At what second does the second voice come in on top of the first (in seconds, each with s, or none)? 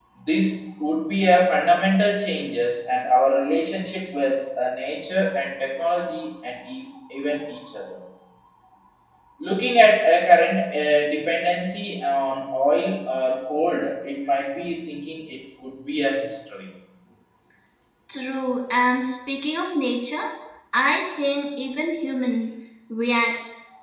none